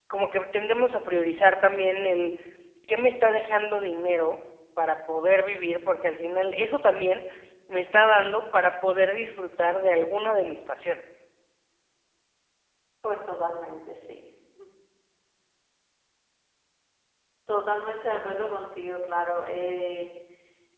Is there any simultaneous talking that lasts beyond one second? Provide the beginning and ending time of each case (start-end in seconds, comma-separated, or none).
none